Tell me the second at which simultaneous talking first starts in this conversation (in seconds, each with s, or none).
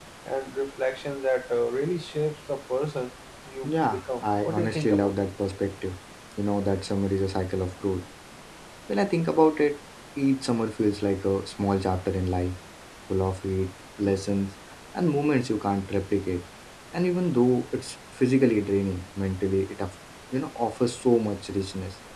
3.6 s